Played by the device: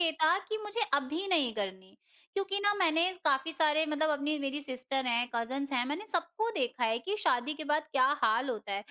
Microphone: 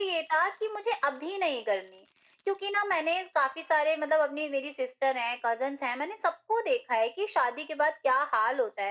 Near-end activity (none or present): none